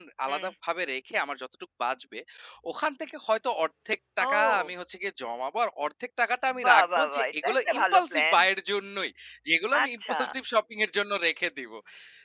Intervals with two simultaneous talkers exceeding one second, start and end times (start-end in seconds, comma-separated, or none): 6.6-8.4